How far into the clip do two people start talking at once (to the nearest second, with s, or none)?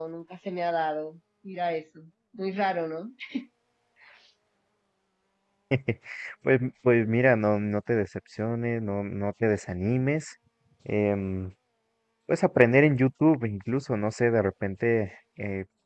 none